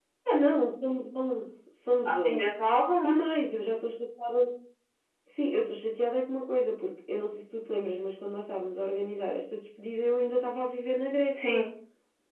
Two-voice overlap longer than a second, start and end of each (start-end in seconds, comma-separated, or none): none